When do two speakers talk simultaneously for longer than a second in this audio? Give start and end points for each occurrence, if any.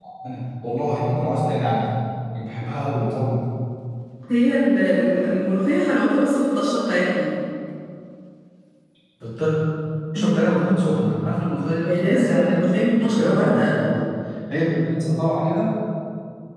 11.8-13.9

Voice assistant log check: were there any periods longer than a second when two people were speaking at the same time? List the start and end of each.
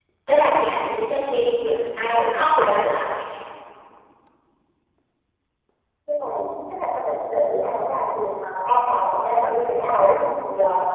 none

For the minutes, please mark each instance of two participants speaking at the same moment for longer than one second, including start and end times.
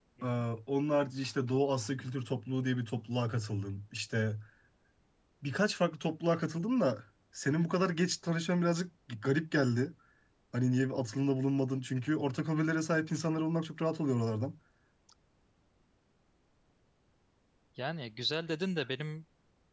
none

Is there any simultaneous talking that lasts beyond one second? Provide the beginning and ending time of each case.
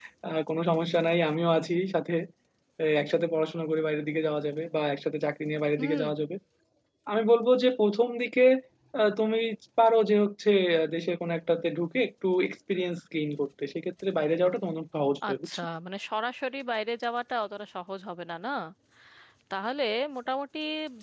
none

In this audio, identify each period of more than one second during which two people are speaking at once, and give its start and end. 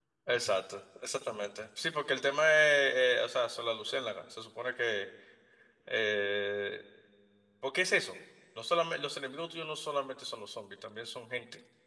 none

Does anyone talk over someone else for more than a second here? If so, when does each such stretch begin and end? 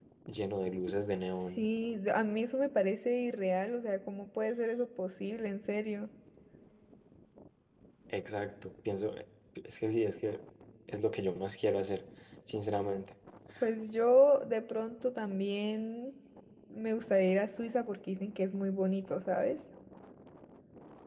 none

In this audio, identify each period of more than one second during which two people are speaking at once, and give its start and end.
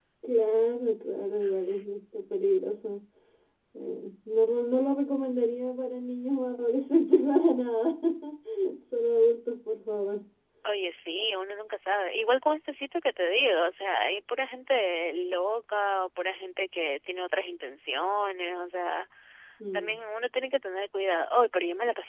none

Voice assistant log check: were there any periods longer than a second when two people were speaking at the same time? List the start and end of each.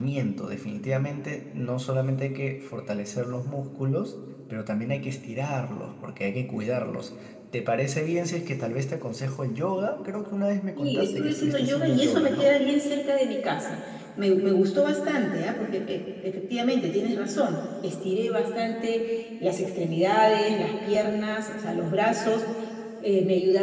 10.8-12.5

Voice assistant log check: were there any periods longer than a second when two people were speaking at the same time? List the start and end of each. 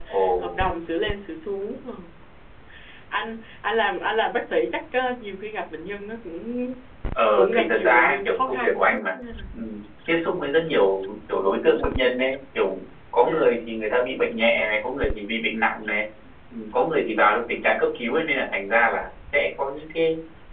7.4-8.8

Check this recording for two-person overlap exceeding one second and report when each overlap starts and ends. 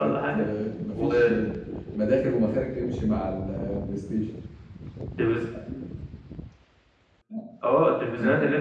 none

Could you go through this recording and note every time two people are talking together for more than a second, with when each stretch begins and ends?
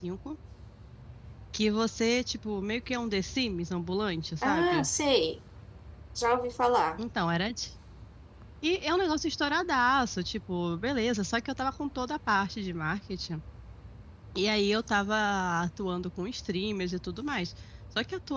none

